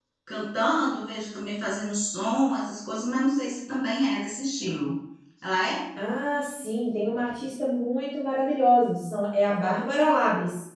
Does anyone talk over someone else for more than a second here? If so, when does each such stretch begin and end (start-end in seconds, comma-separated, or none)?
none